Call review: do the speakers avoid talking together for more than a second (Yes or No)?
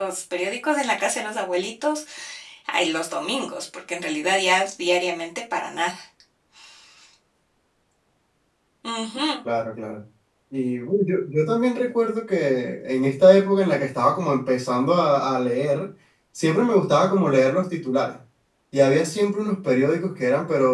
Yes